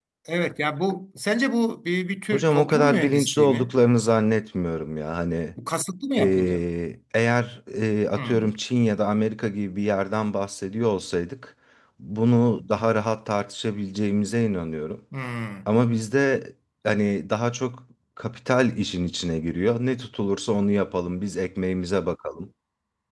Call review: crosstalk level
present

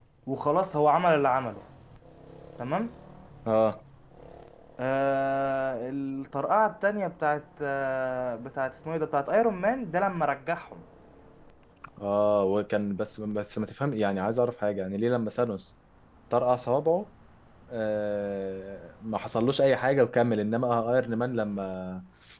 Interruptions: none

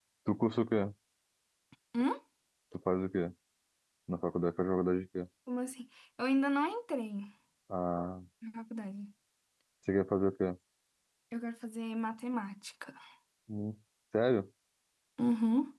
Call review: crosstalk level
none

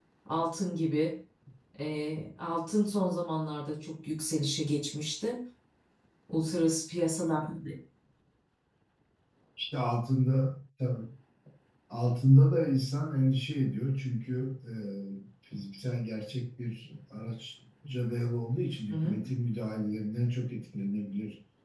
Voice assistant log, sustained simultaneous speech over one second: none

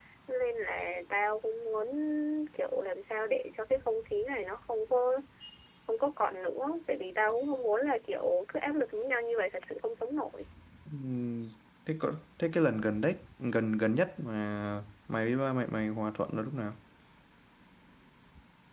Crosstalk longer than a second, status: none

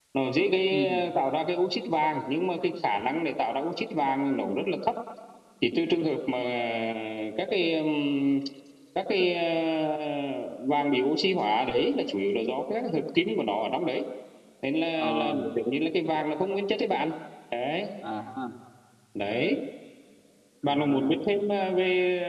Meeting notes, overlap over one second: none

